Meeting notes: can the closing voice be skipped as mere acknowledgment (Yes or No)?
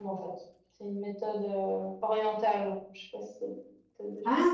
No